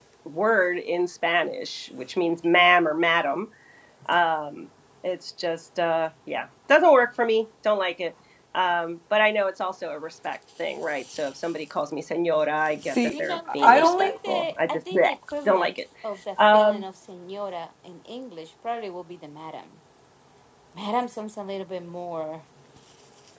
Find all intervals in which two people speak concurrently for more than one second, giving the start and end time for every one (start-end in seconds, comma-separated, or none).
12.8-15.1